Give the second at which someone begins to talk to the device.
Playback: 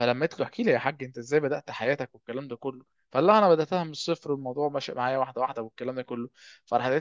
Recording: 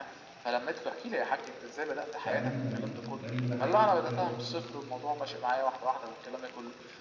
2 s

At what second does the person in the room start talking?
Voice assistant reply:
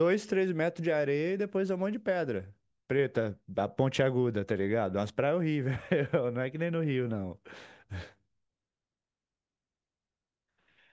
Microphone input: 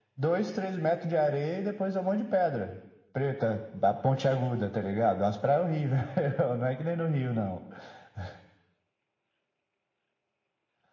none

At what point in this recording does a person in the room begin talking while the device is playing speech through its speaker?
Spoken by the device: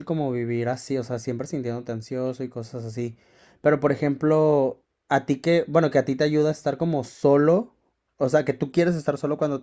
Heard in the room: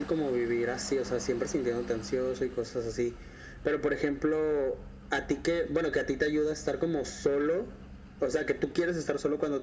none

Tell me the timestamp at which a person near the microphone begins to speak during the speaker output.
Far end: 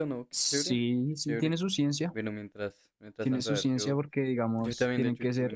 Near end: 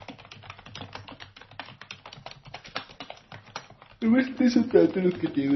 4 s

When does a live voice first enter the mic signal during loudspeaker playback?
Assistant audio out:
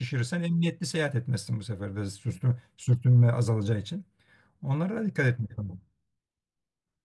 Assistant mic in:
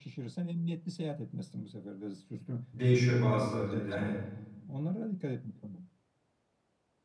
3 s

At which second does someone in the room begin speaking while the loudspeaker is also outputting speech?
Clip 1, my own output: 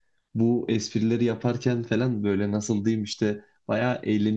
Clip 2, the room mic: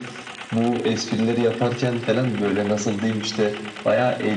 none

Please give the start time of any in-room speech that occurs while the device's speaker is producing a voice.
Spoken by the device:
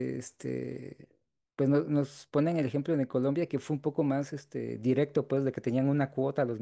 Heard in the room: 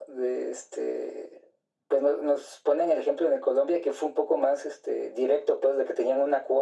none

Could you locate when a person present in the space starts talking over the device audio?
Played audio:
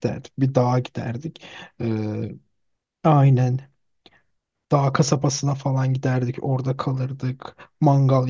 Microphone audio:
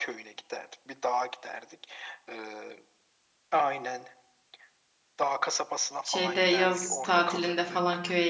6 s

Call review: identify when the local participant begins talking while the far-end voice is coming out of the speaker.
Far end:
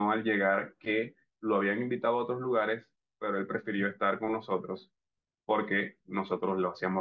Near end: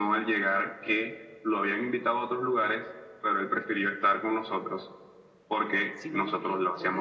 6 s

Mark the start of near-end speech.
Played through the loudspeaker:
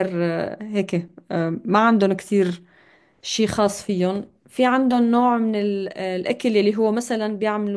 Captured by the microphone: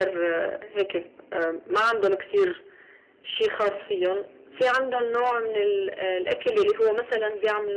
none

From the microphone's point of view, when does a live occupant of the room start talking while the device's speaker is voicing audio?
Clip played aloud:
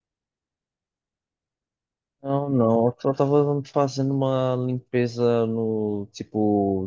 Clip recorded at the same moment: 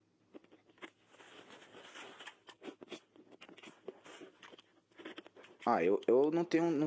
6 s

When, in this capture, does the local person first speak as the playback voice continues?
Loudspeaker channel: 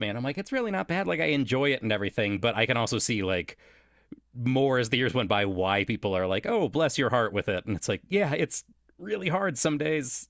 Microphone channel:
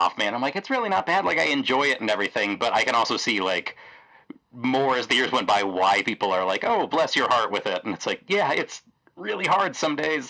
none

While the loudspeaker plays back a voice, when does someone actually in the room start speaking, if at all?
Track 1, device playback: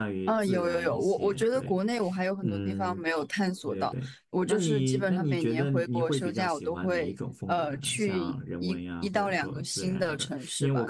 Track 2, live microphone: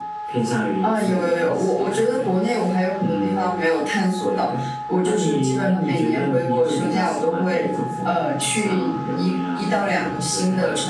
none

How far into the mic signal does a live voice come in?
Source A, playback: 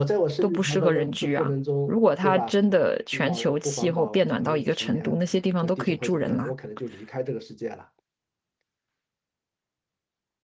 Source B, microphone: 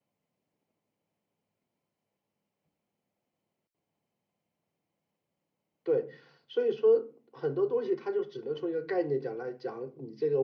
6 s

